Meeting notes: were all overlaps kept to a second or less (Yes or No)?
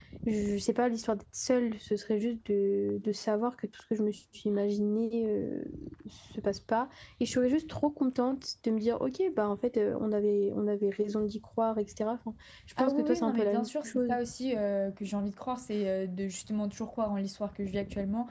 No